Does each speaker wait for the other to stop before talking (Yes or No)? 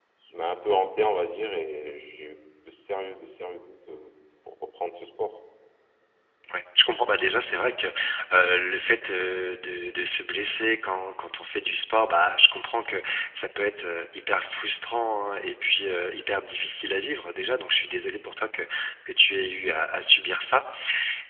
Yes